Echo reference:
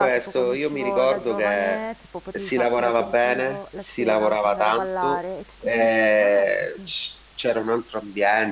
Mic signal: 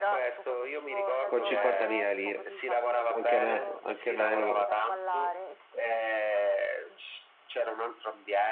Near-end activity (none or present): present